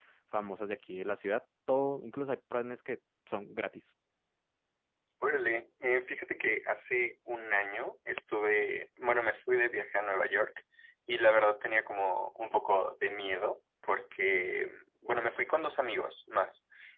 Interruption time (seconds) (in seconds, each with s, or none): none